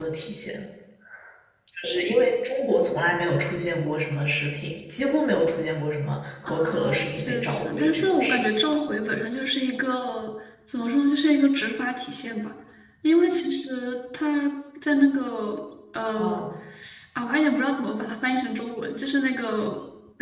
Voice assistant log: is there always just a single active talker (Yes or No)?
No